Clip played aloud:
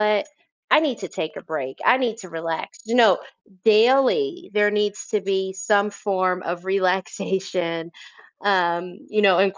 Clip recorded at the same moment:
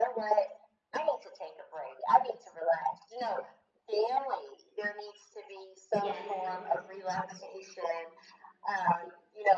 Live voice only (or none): Yes.